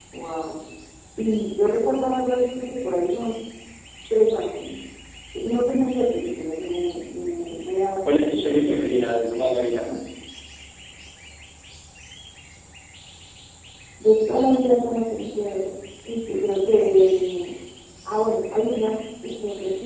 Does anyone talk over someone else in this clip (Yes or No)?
Yes